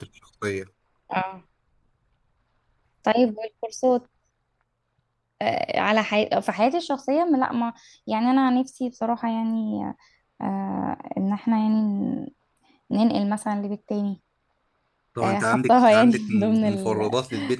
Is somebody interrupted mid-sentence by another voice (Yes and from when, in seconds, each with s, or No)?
Yes, from 15.2 s